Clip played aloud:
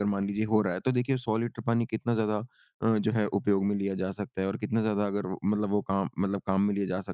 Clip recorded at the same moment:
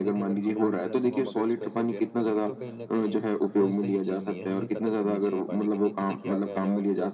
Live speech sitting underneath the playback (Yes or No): Yes